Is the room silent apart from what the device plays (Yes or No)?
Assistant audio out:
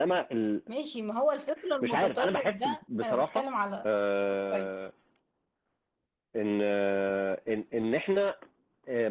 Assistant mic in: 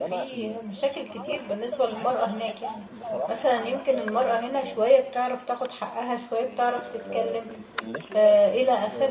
No